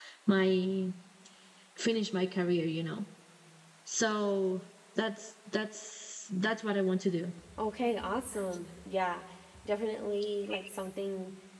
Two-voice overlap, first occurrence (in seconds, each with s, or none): none